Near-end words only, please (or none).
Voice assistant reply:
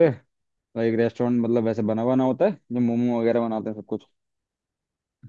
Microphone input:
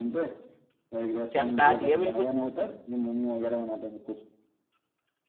चमका दिया बिल्कुल